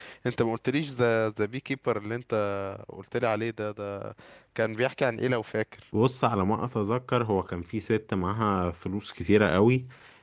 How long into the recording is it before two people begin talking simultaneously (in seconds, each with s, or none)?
none